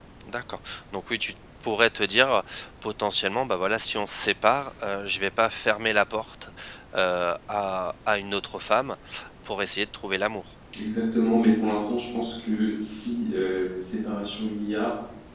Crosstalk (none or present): none